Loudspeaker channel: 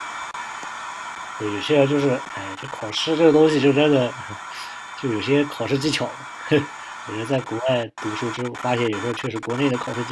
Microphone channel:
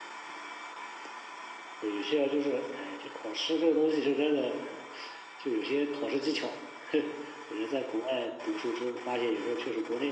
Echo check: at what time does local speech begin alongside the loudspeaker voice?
none

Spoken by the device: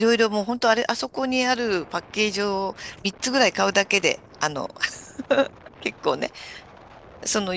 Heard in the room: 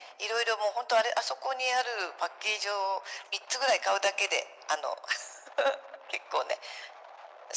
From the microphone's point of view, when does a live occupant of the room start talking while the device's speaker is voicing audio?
none

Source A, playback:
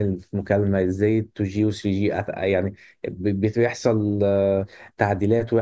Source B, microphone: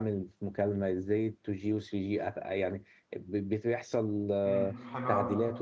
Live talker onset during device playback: 4 s

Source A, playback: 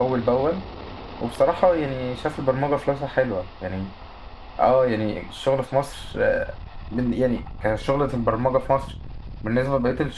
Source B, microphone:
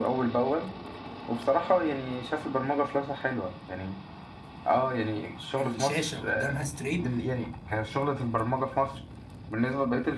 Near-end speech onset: 6 s

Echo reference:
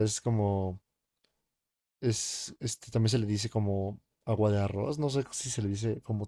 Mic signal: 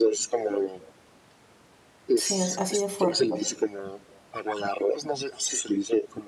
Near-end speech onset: 2 s

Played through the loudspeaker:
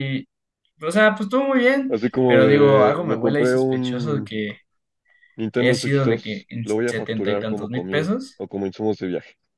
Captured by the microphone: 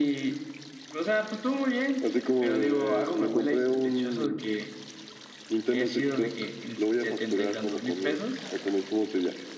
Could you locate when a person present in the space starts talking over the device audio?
none

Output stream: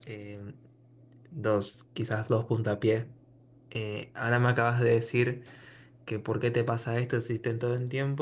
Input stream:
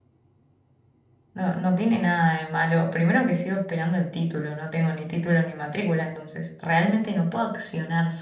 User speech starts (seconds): 1 s

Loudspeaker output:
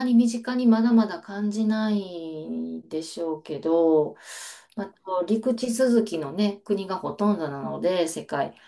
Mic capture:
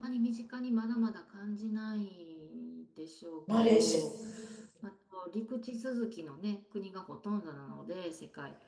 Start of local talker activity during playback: 3 s

